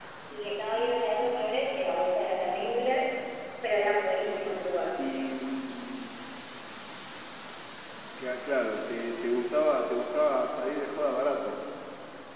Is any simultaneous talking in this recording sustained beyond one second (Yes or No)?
No